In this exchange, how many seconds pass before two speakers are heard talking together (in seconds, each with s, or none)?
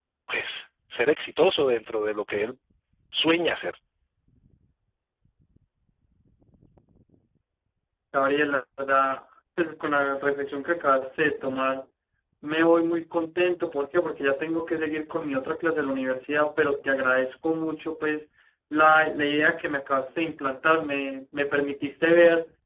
none